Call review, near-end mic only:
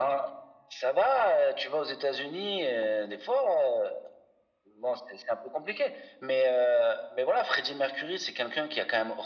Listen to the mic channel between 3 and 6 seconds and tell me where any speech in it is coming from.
echo only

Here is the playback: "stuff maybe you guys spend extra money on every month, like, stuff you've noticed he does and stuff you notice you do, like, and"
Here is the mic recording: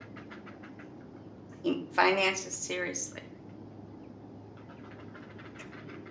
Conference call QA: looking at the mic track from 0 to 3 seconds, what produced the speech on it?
user only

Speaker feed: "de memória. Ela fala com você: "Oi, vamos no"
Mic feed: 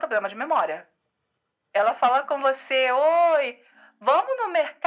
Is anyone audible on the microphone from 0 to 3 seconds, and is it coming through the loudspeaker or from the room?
echo only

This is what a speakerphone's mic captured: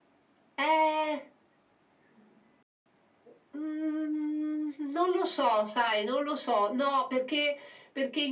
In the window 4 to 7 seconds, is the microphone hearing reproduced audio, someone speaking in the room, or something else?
echo only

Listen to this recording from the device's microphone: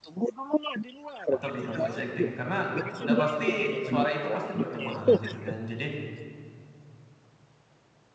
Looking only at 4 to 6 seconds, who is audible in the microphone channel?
both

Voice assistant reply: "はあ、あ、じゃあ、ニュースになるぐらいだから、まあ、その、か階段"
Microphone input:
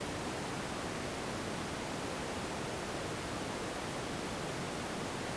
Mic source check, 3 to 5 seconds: neither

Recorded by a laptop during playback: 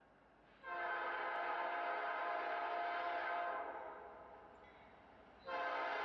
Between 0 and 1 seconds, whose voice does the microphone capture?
neither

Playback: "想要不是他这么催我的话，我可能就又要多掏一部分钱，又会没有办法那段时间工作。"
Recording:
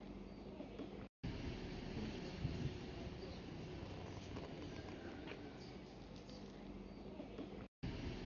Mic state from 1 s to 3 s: neither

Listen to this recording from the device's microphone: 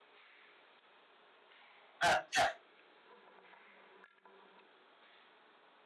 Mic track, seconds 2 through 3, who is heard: user only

